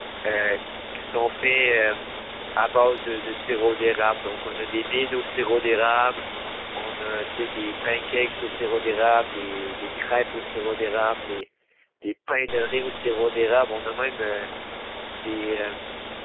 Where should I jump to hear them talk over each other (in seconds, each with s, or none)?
none